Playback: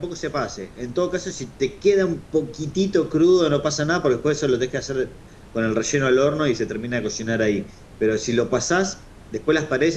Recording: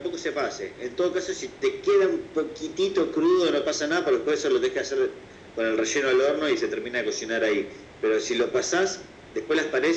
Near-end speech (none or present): none